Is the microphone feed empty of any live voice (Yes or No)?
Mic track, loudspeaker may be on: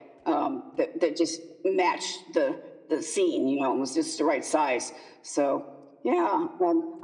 Yes